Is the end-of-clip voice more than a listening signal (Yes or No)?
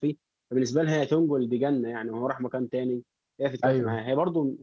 No